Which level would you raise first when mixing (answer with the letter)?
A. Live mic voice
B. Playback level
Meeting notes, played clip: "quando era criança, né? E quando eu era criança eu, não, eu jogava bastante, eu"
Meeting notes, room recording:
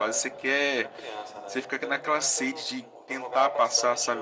B